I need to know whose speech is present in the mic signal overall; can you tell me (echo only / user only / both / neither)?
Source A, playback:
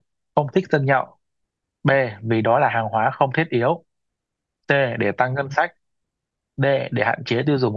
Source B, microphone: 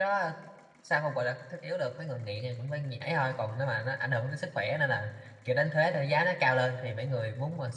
user only